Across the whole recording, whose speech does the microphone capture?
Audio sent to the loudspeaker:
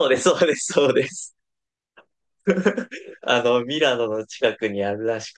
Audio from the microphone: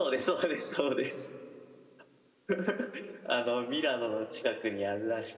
echo only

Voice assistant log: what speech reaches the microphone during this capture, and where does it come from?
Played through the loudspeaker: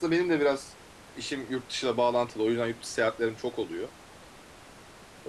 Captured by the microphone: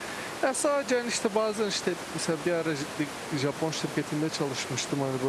user only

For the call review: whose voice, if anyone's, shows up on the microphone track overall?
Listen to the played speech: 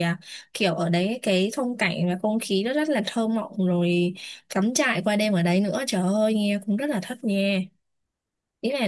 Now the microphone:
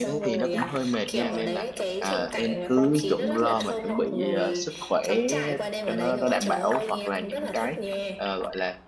both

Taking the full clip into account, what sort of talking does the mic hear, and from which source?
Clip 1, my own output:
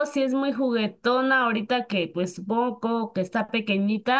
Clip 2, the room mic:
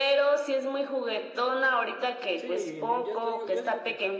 both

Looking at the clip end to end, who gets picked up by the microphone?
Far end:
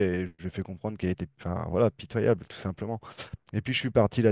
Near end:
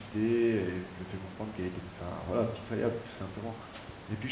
echo only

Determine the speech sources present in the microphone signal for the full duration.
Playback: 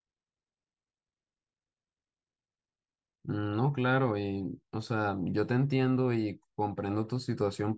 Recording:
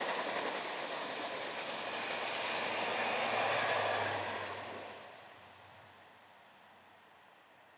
neither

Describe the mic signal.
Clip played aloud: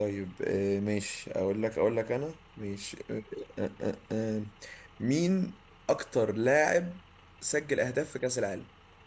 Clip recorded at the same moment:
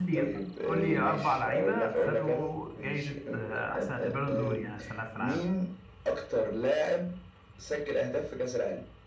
both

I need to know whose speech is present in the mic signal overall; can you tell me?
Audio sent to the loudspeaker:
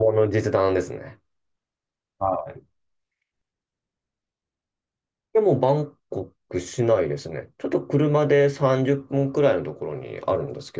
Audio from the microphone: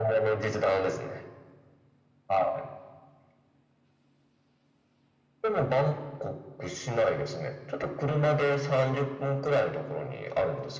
echo only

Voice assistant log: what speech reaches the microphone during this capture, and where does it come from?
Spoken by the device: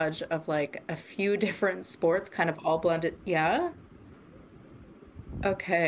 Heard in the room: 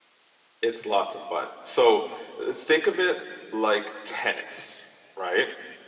user only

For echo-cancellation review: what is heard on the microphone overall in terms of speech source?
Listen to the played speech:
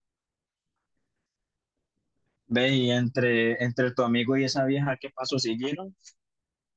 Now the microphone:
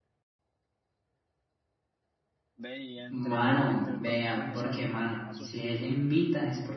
both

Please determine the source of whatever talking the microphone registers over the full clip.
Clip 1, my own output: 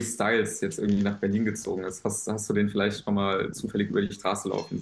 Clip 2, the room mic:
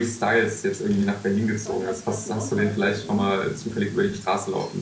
both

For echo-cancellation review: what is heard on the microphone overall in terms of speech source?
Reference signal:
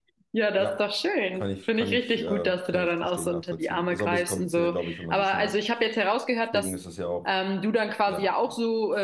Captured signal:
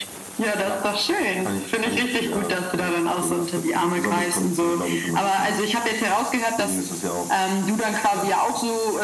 echo only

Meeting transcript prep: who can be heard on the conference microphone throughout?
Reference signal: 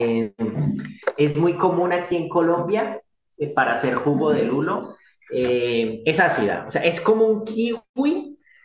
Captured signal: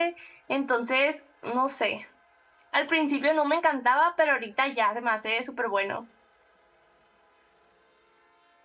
user only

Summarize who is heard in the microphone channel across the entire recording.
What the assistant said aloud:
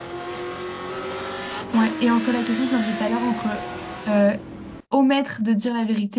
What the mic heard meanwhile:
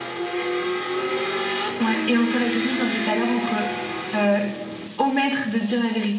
echo only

